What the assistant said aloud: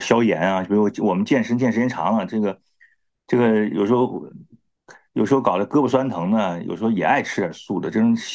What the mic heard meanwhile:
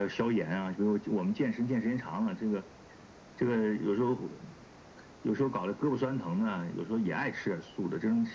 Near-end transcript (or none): none